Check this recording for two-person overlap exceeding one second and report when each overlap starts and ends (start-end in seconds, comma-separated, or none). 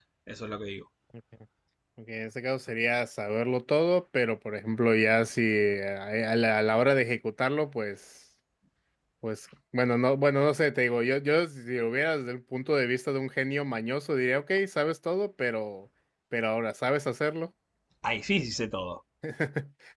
none